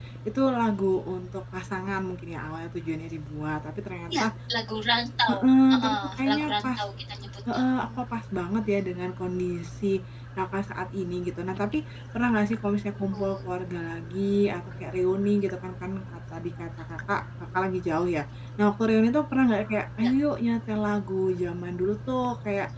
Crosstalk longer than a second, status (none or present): present